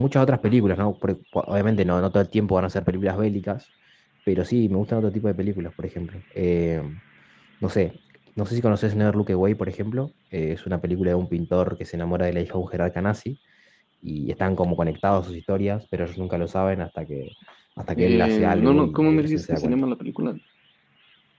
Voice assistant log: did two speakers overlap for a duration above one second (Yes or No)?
Yes